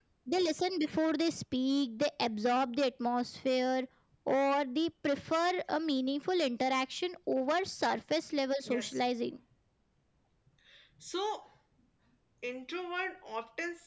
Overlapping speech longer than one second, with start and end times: none

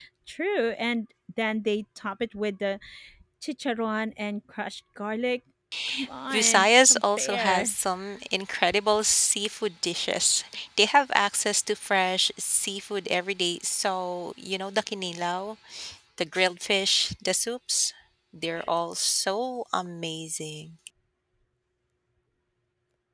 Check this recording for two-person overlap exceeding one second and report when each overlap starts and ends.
6.3-7.7

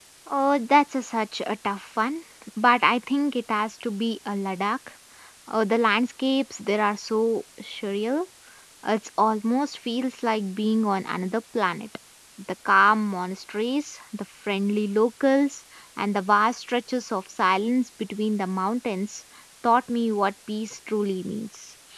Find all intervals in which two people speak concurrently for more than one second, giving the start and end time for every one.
none

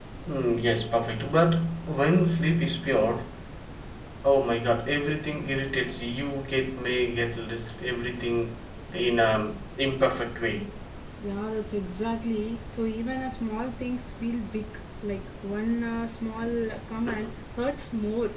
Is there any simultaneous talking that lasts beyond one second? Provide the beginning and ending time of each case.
none

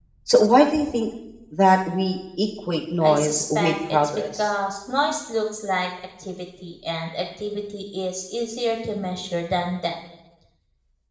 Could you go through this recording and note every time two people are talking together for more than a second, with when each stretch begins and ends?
3.0-4.5

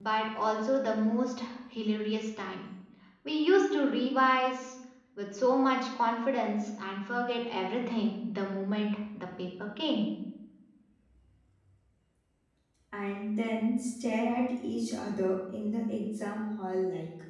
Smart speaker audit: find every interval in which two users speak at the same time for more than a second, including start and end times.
none

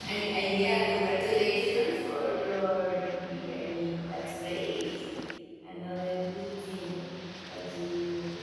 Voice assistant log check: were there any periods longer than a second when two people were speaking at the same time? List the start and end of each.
none

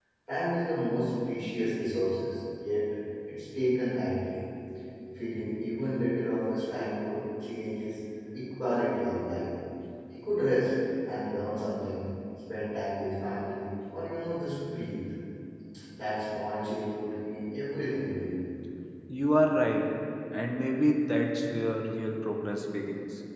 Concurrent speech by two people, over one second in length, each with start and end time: none

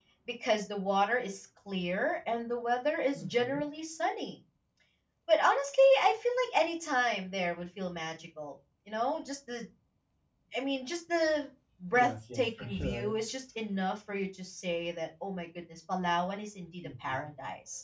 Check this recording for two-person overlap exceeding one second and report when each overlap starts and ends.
11.9-13.2

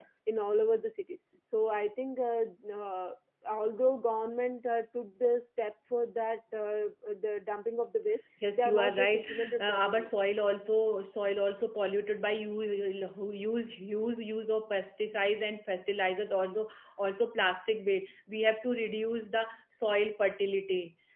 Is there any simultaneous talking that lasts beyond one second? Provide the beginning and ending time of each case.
8.5-10.1

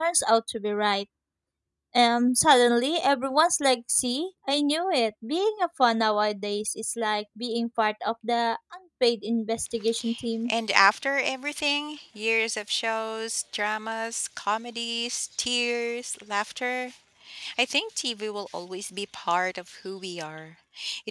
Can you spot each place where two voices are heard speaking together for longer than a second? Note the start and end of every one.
none

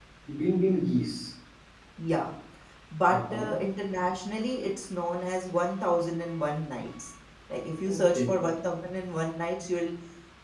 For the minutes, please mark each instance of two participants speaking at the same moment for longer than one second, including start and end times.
none

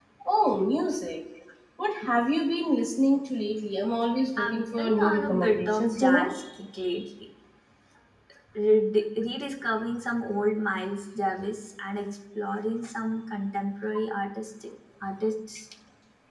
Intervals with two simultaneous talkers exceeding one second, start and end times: 4.4-6.3

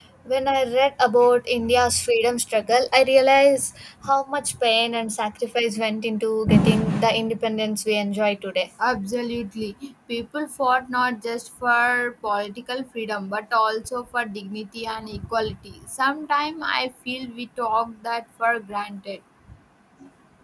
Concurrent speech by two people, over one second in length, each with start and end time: none

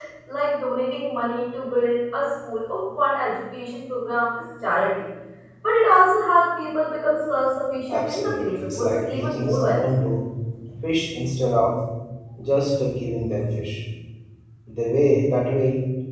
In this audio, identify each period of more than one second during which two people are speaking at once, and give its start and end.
7.9-9.9

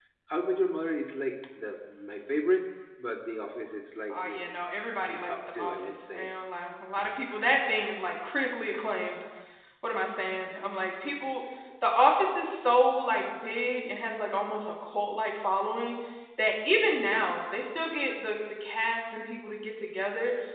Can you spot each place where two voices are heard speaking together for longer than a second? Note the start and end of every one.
5.0-6.3

